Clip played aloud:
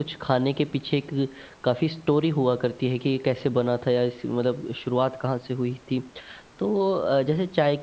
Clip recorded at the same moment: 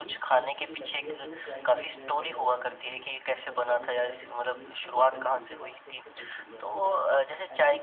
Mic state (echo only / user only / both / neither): both